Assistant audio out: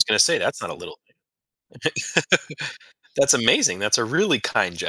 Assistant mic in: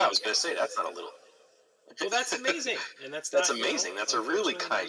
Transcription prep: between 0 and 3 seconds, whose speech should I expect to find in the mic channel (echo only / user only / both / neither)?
both